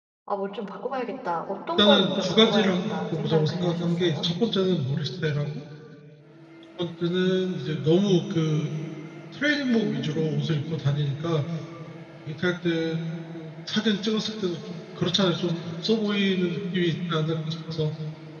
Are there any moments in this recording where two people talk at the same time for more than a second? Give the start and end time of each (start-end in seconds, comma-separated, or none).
1.8-4.3